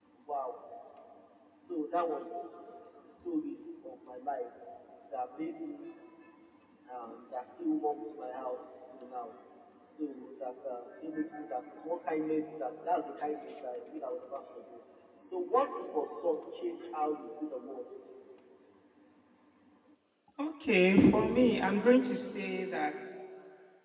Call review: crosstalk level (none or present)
none